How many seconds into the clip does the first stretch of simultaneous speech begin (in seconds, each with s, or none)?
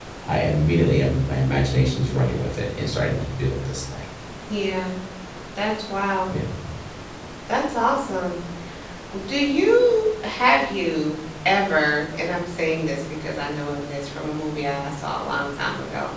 none